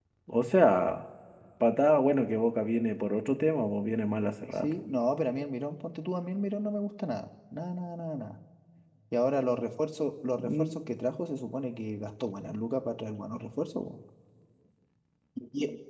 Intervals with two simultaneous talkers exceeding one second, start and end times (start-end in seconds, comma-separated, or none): none